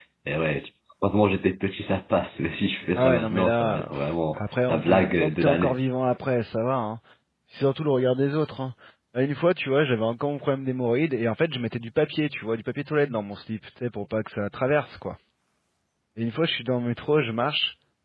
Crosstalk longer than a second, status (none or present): present